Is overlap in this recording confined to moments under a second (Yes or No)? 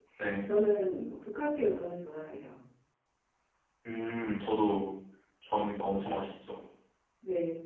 Yes